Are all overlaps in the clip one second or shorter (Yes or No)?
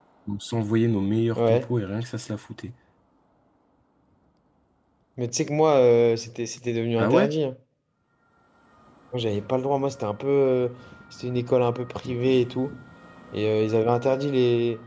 Yes